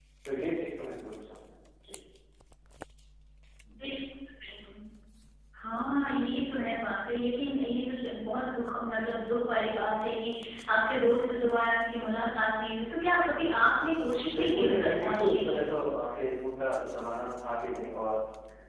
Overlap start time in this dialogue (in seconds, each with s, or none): 14.3 s